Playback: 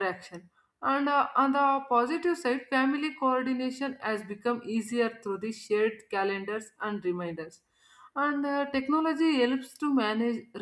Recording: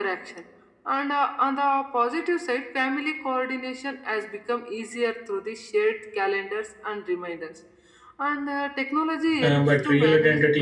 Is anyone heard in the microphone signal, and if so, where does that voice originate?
both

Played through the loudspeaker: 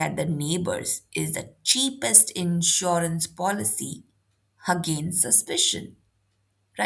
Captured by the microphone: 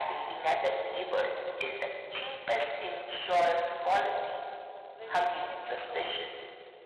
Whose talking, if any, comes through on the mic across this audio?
both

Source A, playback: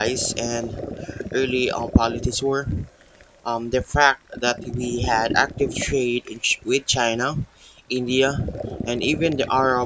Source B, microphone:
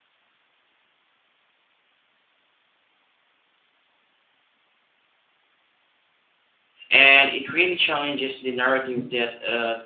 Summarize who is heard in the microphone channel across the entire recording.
user only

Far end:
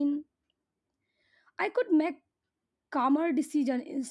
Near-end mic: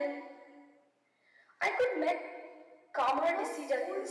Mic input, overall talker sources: both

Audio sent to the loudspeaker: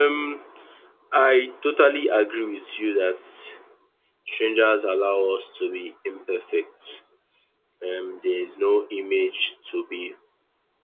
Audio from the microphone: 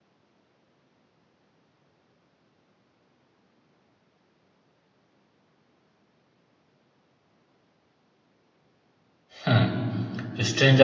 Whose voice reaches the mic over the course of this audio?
user only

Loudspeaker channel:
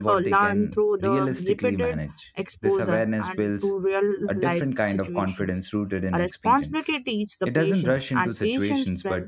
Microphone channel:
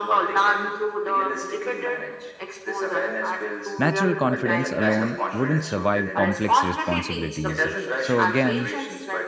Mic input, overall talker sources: both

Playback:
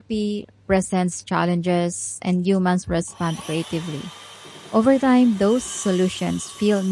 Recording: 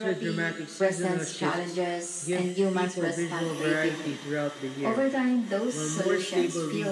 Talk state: both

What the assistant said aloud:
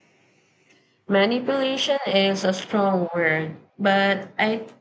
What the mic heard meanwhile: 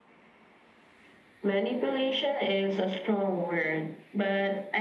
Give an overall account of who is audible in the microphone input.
echo only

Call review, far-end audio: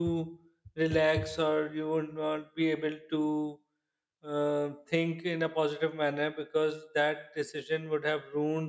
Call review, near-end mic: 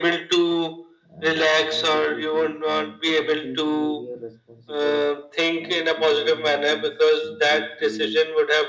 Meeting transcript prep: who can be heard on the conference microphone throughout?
both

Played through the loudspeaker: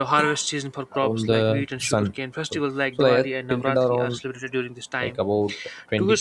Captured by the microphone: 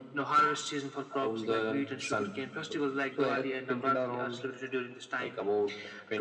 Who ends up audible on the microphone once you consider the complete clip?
echo only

